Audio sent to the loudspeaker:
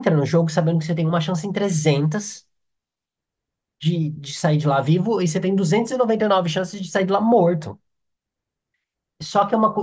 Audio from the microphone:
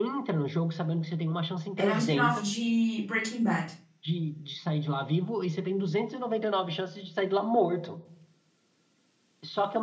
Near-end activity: present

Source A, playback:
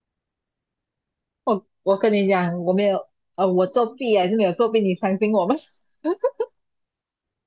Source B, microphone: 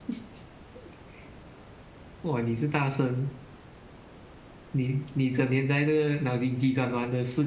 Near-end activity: present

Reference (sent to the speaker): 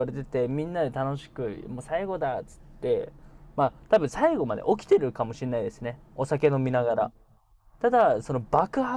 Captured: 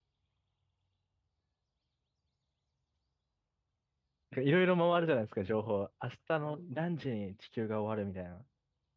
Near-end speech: present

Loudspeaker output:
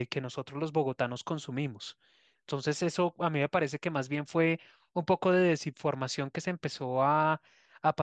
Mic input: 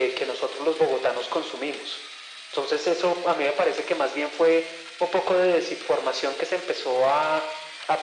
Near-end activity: none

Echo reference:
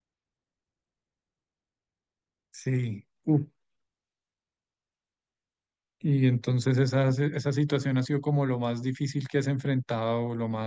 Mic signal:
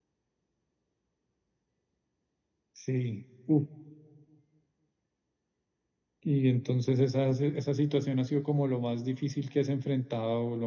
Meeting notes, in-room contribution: none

